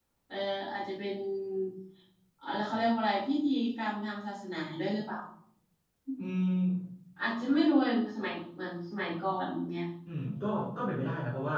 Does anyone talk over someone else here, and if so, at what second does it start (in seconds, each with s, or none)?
none